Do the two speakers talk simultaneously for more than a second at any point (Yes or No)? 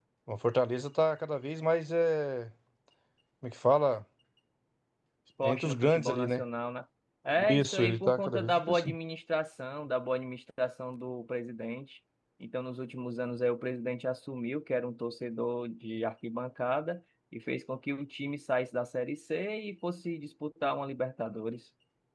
Yes